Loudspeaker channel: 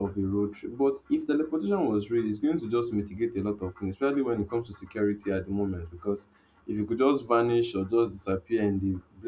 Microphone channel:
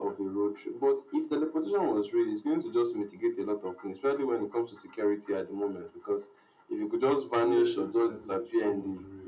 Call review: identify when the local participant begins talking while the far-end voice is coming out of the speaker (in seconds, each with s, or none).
7.4 s